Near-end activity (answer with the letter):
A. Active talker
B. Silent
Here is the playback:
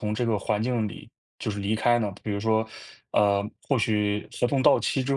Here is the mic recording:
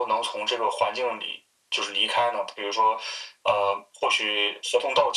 B